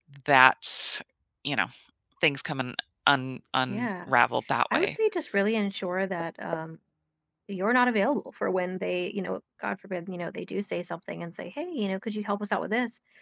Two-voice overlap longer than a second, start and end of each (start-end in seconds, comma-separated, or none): none